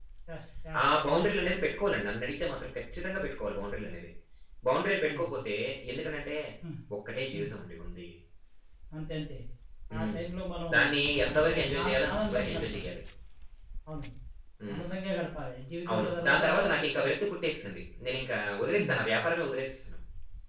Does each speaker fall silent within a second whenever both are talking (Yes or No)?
No